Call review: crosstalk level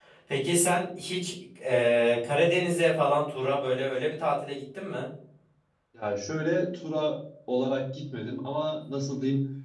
none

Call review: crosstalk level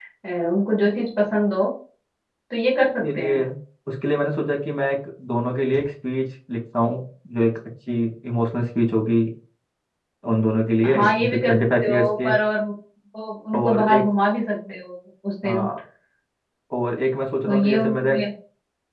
present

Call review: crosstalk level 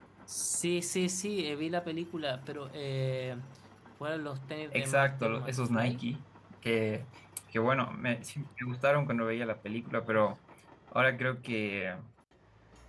present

